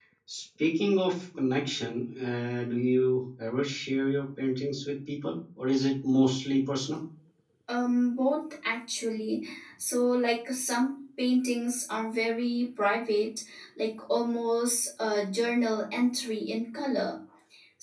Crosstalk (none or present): none